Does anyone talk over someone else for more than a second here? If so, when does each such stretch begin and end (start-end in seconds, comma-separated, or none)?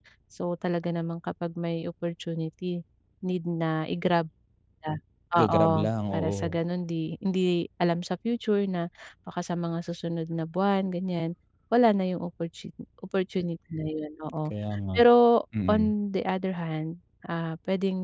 none